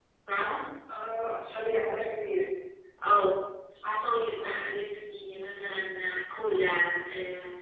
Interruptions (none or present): none